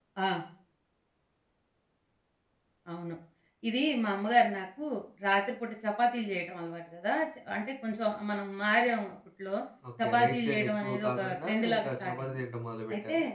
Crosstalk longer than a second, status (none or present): present